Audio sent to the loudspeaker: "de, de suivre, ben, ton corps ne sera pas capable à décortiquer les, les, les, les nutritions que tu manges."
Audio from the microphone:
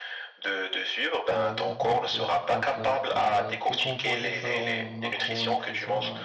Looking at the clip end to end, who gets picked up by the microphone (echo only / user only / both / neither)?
both